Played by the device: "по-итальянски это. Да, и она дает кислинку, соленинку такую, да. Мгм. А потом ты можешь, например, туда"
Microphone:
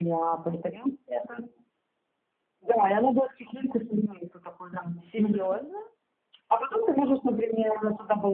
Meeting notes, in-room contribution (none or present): present